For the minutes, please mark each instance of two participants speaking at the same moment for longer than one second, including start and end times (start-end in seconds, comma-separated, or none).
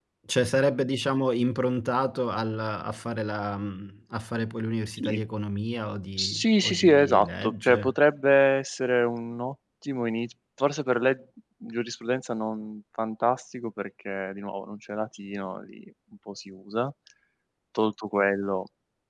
6.2-7.9